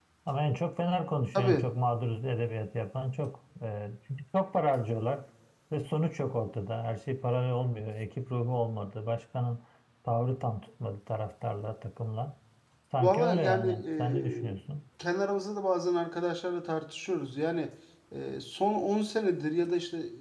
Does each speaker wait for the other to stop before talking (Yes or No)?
No